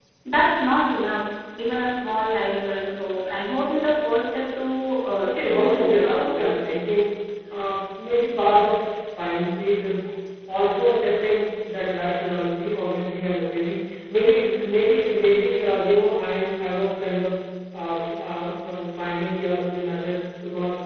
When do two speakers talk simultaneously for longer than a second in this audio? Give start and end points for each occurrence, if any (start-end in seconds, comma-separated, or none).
5.2-6.4